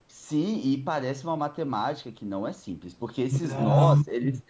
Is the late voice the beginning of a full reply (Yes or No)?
No